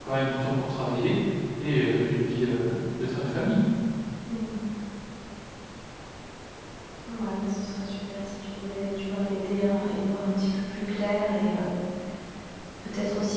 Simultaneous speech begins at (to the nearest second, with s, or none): none